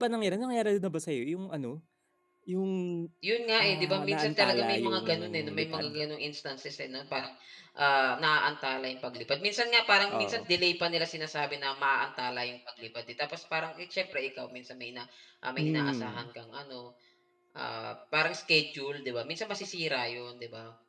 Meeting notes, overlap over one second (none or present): present